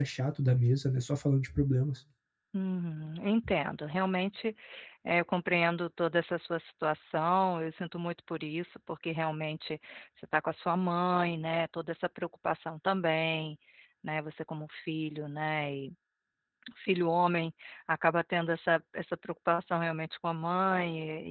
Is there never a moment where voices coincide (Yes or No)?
Yes